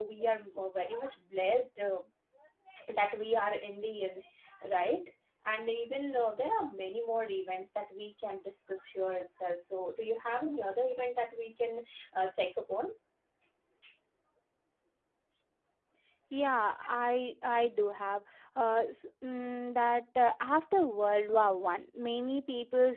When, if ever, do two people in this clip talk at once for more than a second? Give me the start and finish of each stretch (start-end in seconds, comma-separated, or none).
none